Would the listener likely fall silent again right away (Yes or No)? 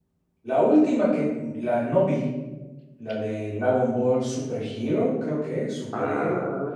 No